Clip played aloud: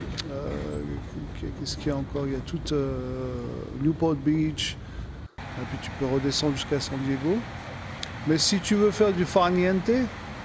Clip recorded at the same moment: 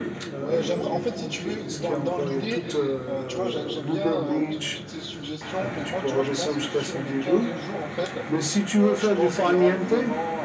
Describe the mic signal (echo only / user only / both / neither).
both